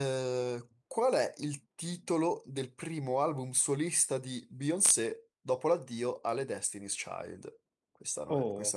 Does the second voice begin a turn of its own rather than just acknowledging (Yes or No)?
Yes